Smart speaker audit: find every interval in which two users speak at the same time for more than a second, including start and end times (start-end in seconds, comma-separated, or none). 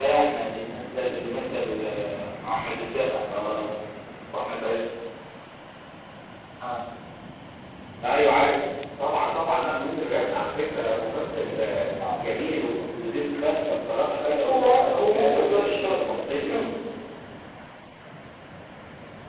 14.3-16.2